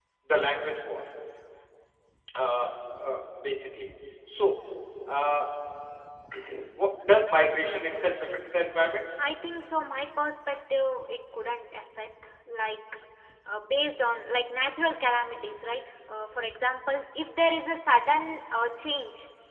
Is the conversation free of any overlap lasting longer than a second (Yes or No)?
Yes